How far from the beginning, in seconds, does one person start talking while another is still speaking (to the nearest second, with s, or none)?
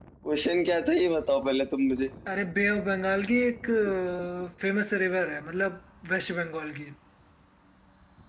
none